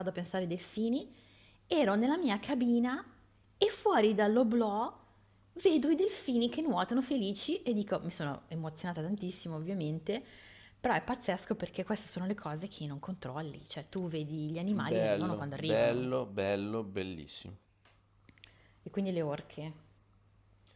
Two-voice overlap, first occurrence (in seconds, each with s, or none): 14.7 s